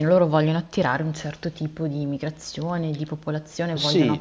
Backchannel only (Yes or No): No